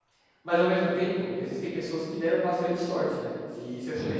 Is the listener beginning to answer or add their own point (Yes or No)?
No